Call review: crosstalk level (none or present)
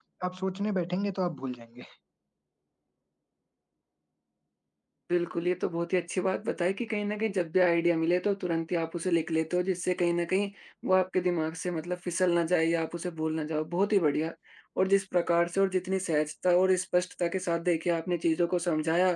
none